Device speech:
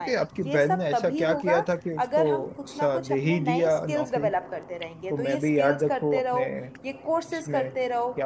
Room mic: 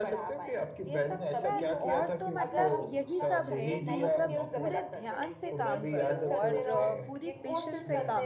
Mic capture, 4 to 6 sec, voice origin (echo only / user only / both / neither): both